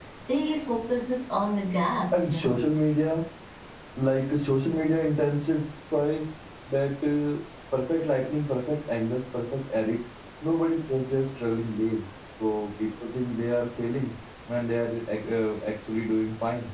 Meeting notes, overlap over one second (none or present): none